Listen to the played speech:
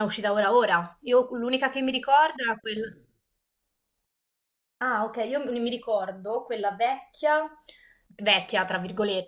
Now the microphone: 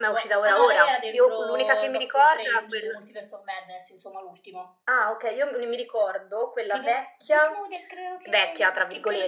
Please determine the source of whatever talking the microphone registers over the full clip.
both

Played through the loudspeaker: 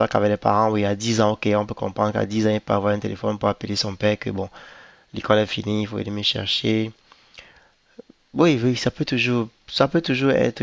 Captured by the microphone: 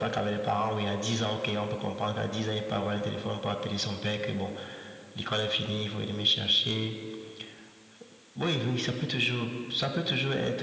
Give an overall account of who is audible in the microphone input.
echo only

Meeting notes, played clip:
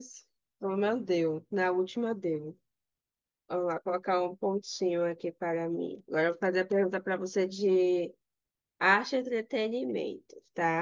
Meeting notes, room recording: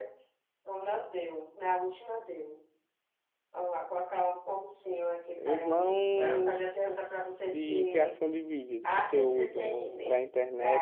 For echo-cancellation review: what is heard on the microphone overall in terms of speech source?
both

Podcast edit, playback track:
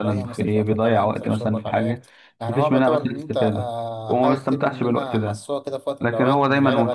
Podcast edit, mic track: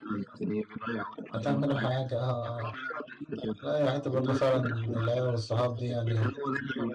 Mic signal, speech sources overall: both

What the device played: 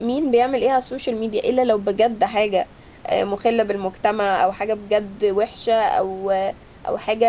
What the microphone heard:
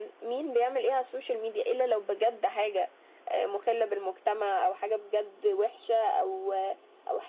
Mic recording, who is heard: echo only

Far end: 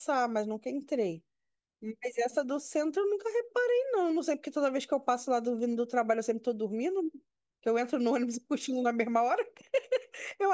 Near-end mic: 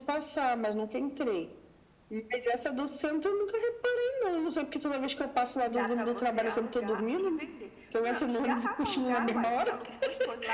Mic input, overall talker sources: both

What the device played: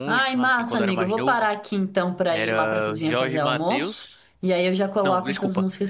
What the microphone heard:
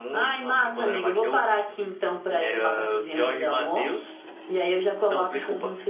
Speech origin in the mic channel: echo only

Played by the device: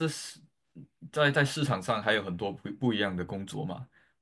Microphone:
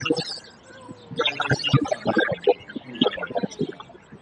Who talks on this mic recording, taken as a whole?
echo only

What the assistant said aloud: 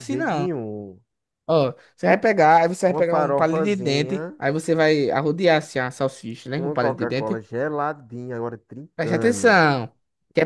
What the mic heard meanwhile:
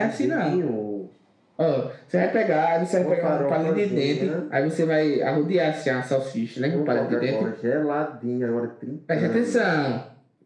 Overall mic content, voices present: echo only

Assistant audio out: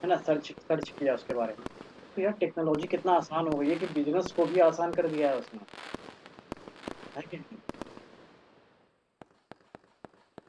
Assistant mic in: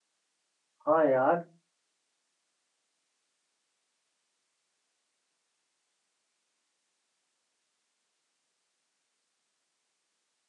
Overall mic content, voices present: user only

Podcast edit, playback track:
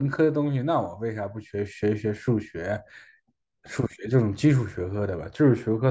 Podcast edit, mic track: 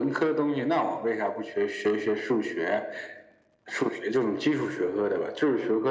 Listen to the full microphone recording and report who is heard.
echo only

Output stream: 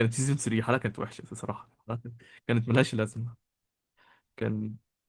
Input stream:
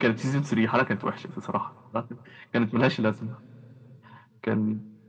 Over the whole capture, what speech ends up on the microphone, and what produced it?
echo only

